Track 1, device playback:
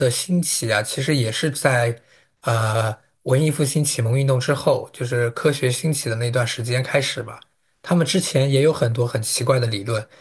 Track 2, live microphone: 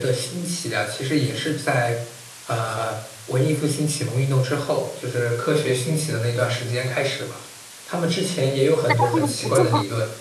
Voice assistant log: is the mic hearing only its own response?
No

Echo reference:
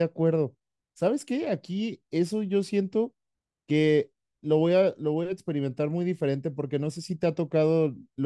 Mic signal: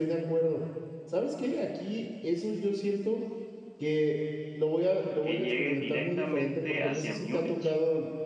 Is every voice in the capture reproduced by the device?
No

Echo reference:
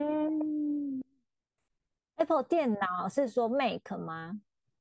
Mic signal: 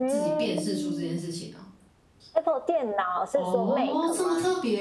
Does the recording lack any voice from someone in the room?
No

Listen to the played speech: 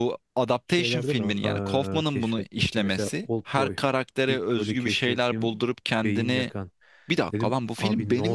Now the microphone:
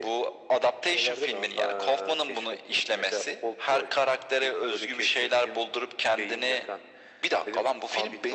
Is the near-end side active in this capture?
No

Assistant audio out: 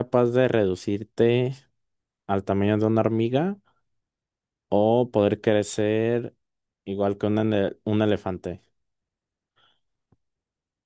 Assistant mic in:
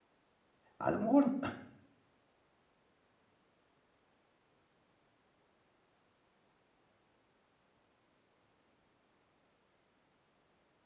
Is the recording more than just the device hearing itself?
Yes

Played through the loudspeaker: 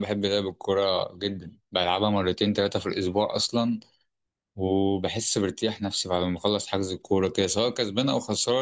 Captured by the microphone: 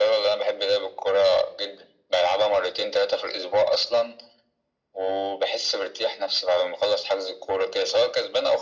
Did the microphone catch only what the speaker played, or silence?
Yes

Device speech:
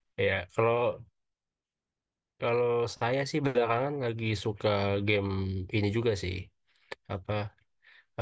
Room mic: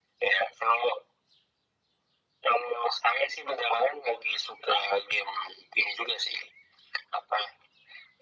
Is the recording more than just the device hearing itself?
No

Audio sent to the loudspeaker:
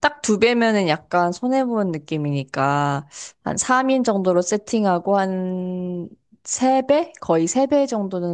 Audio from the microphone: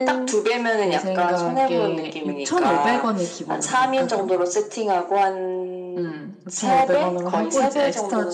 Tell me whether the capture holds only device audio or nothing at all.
No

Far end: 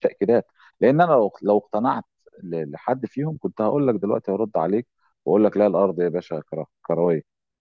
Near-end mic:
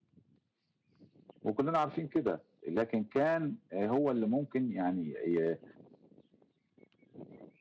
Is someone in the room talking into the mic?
Yes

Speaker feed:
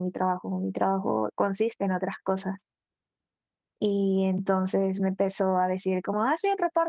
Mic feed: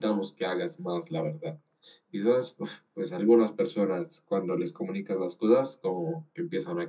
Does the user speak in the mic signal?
Yes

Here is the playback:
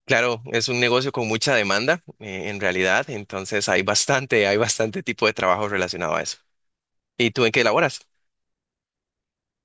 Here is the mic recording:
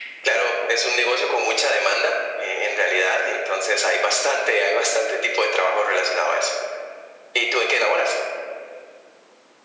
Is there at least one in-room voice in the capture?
No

